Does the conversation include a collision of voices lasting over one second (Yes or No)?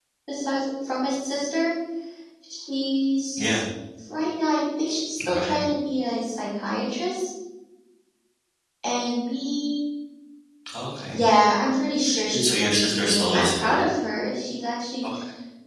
Yes